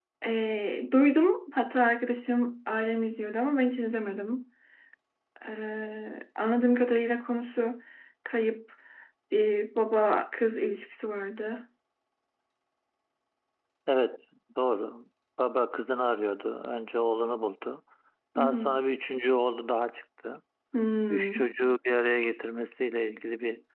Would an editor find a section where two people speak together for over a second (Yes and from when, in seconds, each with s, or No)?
No